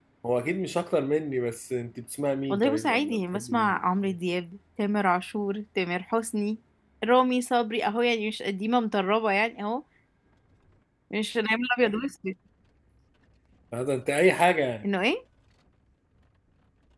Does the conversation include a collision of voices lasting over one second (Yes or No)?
Yes